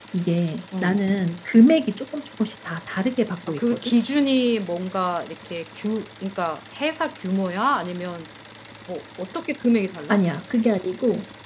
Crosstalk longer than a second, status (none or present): none